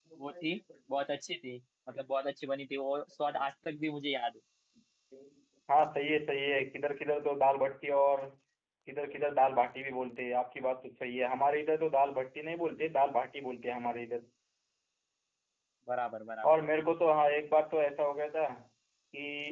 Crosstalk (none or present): none